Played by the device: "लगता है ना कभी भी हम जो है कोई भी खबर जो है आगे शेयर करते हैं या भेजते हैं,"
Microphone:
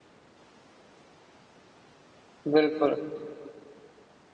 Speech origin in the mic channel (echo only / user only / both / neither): user only